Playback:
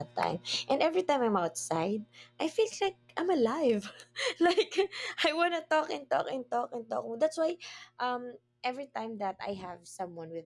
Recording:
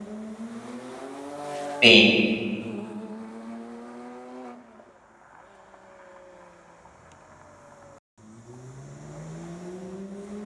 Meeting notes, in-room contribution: present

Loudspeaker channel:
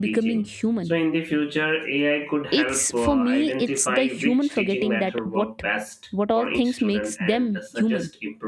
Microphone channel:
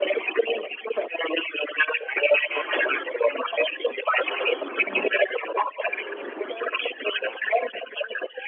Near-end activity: none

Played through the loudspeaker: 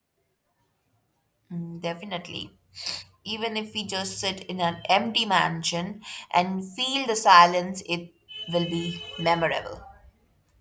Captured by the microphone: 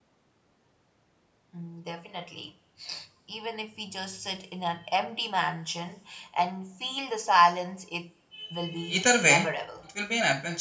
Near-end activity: present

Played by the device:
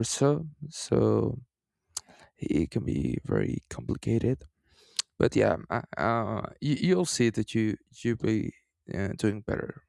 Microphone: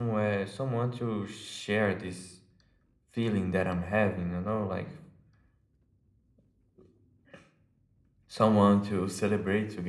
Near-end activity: present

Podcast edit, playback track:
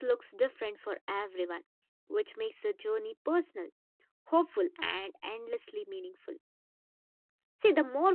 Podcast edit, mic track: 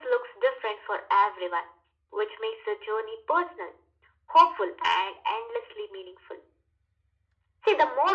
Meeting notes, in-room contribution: none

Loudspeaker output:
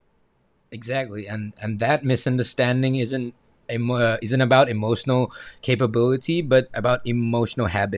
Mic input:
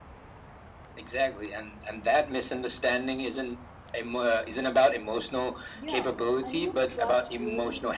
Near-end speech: present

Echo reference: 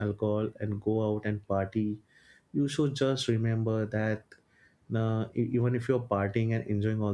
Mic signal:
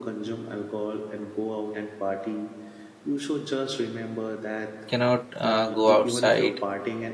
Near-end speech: present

